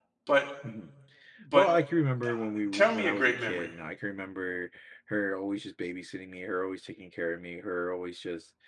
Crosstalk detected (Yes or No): Yes